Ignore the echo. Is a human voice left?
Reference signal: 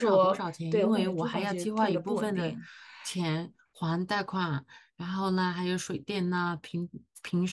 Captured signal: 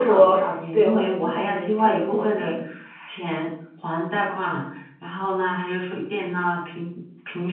No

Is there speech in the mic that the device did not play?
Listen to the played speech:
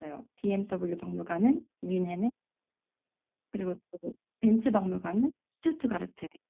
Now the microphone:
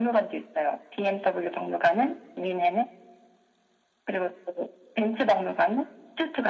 No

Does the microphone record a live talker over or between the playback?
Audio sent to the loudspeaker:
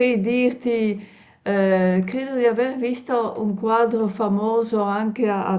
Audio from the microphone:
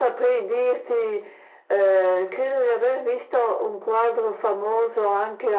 No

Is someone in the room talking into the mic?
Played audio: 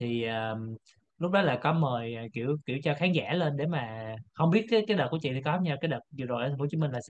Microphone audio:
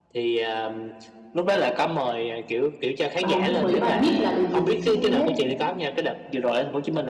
Yes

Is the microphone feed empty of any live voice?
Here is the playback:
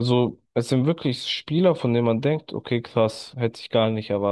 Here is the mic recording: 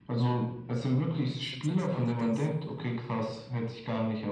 No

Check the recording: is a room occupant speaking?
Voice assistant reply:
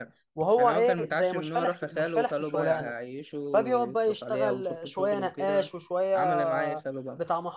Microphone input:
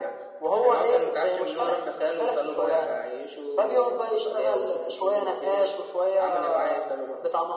No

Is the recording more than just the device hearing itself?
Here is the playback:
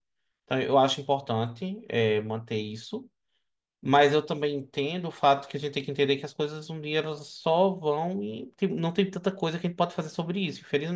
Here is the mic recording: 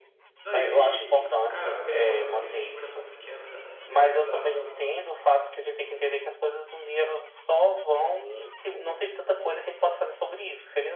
Yes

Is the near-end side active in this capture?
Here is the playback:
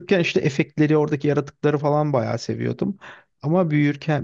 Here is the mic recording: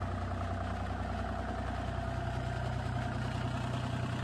No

